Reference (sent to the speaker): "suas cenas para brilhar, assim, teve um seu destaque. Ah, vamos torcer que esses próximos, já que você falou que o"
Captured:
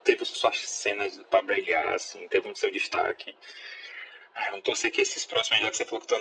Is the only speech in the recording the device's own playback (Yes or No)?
Yes